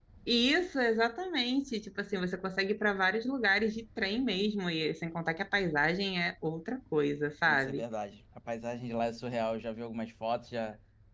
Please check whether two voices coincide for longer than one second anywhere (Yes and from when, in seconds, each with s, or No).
No